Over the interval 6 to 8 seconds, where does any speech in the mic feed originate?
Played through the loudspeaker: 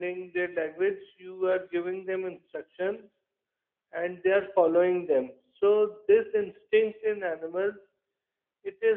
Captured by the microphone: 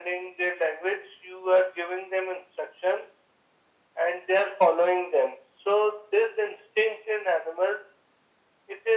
echo only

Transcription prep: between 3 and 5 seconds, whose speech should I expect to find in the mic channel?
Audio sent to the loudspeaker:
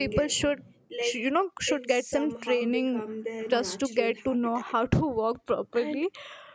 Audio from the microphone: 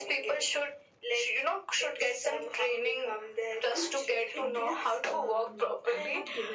both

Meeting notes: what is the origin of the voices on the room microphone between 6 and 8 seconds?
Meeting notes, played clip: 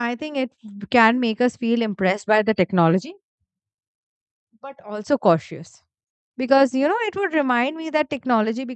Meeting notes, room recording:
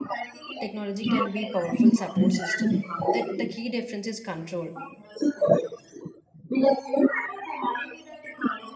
echo only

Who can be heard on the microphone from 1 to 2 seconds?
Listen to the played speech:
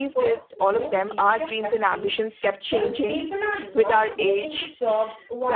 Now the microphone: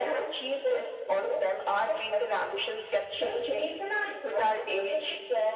echo only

